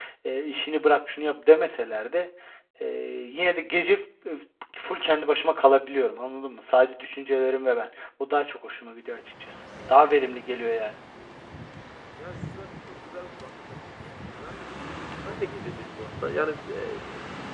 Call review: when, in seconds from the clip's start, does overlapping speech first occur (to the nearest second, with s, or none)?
none